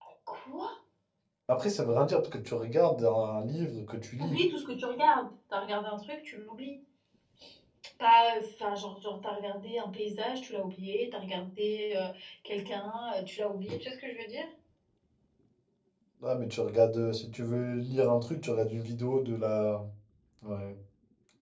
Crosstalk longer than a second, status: none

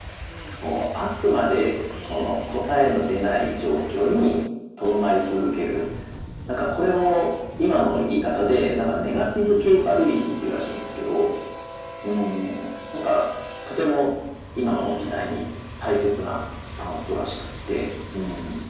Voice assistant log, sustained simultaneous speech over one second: present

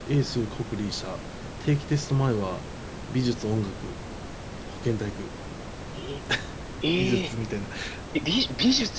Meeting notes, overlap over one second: none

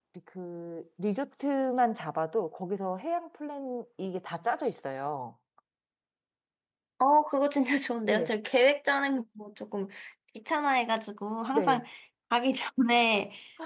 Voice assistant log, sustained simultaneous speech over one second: none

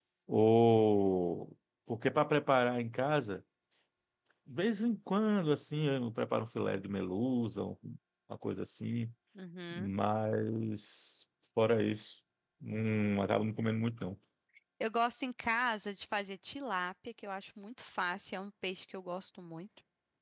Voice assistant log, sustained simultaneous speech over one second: none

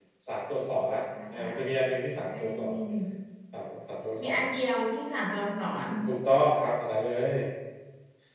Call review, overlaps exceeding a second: none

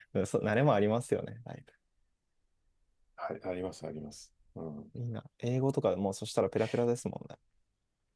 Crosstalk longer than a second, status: none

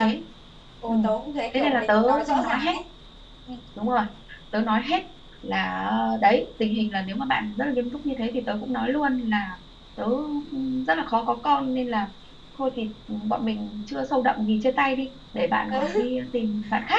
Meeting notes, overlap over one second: present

